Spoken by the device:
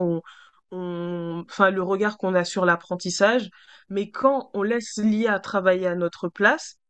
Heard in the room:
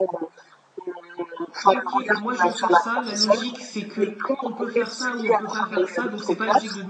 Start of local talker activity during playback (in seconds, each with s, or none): 1.7 s